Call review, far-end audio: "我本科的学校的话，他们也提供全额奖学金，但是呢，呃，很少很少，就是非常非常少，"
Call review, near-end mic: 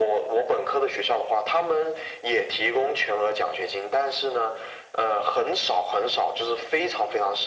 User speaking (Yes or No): No